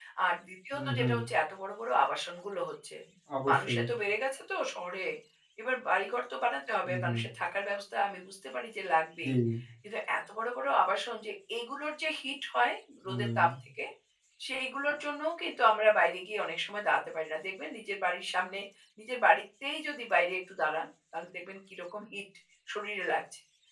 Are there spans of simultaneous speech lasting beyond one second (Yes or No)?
No